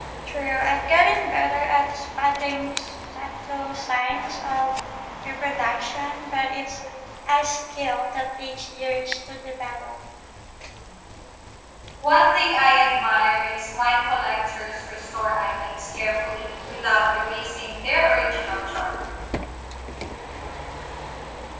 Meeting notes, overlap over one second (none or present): none